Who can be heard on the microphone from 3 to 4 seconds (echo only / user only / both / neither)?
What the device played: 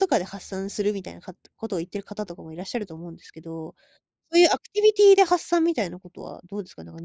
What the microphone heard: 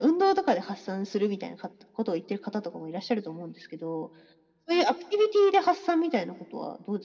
echo only